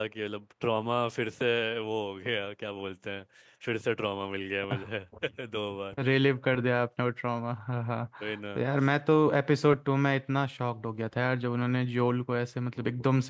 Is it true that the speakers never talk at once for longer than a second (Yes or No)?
Yes